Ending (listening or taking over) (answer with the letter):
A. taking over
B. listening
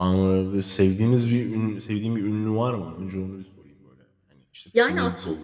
A